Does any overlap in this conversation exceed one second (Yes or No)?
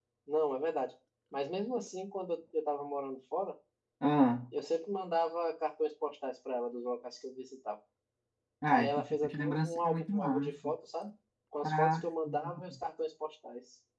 Yes